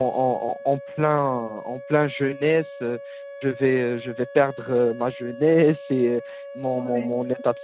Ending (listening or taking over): listening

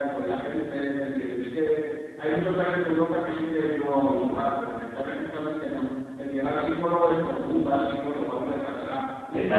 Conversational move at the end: listening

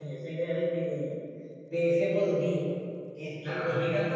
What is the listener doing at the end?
taking over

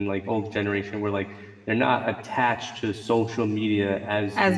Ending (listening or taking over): listening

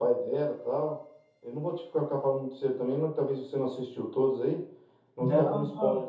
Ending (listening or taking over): taking over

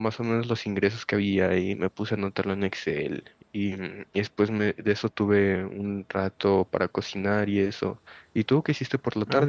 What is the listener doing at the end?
taking over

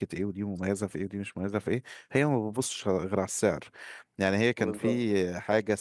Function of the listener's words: listening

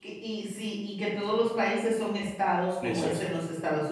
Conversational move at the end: listening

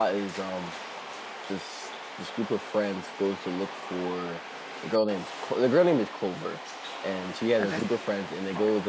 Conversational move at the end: listening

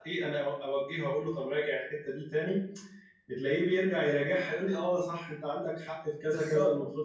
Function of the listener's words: taking over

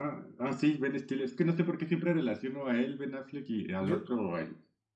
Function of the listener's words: listening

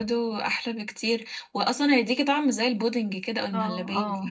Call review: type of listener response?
taking over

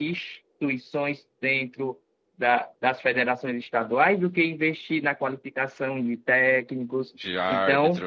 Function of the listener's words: listening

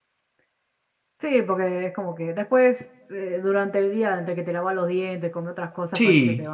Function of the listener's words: taking over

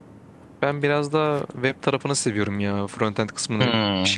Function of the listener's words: listening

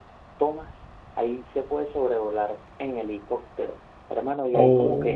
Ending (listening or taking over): listening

